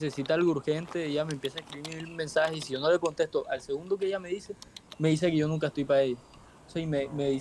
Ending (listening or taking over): listening